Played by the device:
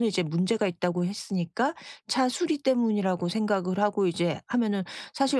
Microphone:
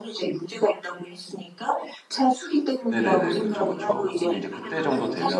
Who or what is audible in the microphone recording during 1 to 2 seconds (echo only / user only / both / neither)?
echo only